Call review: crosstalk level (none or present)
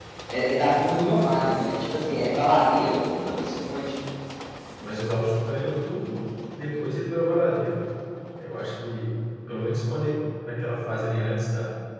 none